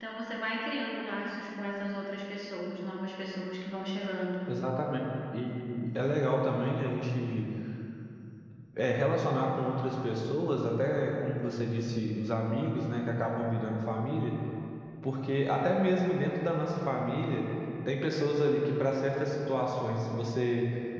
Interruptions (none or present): none